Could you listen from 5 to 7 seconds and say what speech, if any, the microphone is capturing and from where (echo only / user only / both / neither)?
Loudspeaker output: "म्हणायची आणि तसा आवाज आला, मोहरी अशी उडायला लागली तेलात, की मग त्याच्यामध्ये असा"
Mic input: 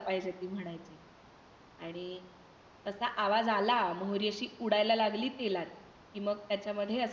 echo only